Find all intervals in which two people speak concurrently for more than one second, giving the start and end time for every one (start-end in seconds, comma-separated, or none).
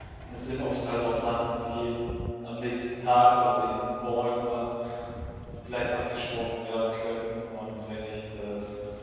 none